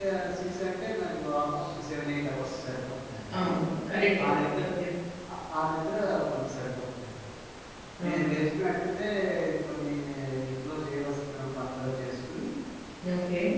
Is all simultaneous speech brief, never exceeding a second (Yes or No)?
Yes